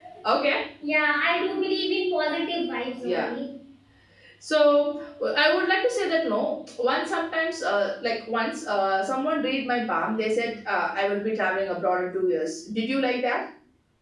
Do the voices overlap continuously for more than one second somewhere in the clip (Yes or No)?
No